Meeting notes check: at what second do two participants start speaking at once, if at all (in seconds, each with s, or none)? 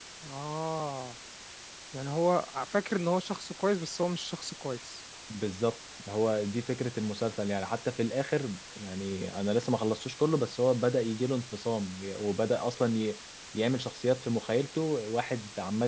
none